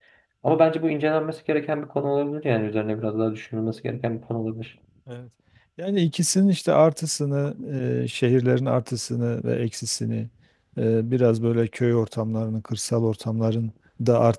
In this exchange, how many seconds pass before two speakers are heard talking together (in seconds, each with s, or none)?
none